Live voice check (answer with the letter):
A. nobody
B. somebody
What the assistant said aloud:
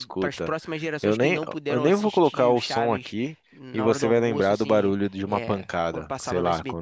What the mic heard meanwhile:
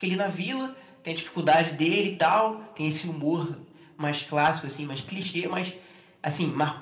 B